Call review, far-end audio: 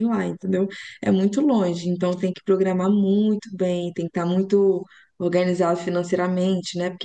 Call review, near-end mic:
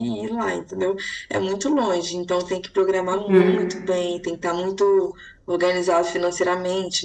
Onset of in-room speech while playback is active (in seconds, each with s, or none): 3.1 s